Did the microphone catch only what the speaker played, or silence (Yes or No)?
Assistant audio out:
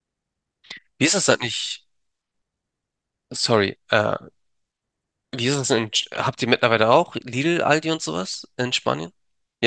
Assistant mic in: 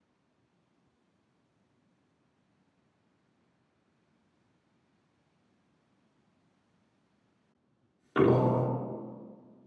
No